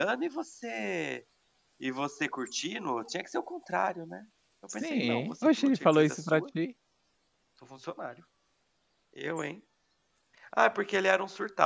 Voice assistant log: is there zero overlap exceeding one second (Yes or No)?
No